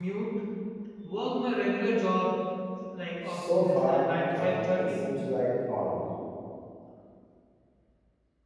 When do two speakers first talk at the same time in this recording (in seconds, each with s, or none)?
3.3 s